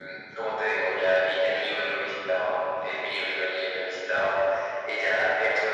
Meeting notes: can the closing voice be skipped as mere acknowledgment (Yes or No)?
Yes